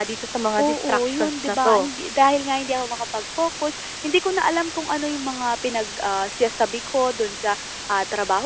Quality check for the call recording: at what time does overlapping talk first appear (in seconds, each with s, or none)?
0.6 s